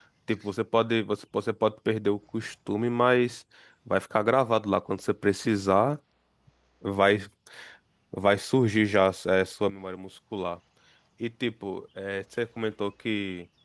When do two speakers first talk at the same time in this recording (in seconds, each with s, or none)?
none